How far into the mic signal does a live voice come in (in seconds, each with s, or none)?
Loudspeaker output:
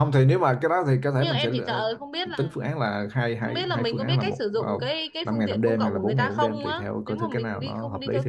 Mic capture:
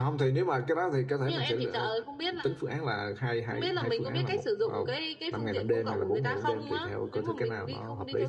none